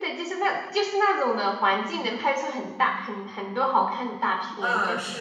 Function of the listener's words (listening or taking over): taking over